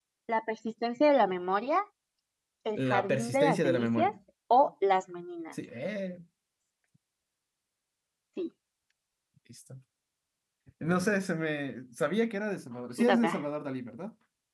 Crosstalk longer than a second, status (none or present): present